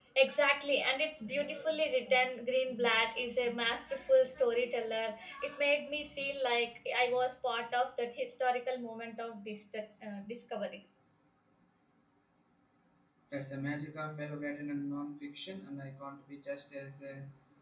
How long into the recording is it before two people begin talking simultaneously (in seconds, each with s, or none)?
none